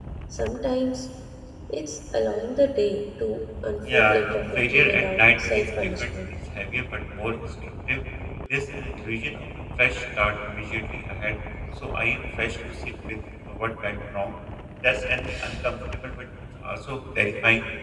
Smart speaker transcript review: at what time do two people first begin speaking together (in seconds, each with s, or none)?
3.8 s